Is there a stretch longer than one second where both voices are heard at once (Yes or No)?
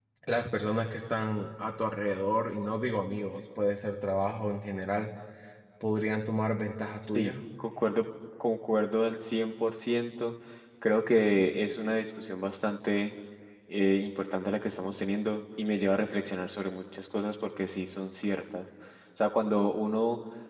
No